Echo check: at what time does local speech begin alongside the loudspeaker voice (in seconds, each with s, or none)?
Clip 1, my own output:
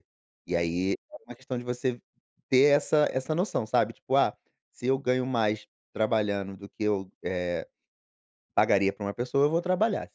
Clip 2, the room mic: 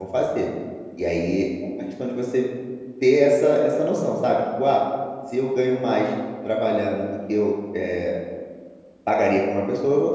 none